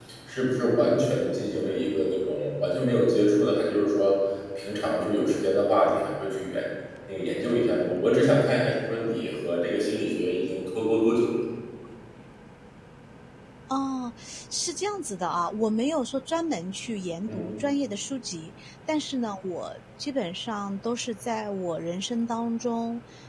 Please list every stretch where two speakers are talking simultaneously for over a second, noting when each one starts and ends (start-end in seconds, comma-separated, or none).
none